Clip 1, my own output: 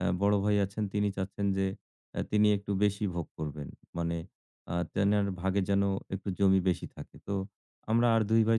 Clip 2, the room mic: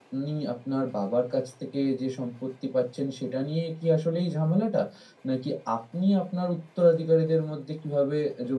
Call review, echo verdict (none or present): none